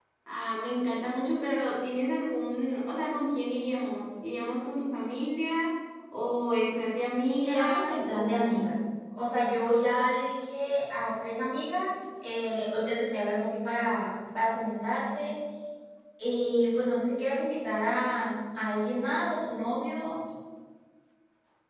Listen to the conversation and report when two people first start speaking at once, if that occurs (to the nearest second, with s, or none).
7 s